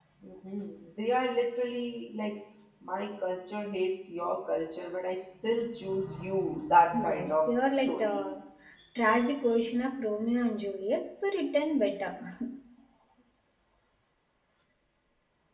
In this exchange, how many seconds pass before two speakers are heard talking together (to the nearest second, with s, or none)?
7 s